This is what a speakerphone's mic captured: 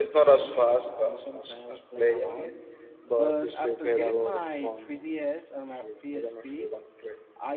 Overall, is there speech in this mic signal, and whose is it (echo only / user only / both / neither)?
both